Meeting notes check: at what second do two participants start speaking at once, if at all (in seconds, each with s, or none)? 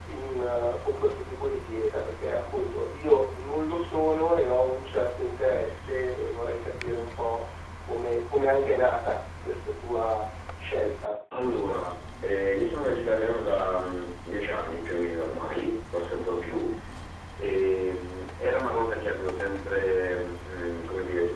none